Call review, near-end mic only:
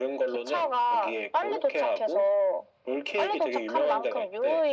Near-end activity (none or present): none